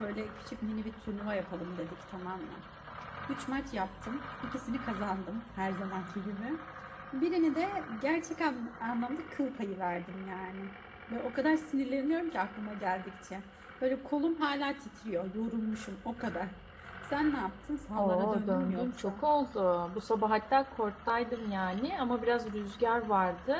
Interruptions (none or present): present